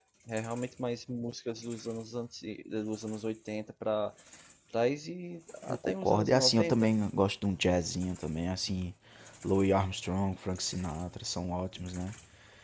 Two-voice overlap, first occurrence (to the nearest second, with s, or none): 6 s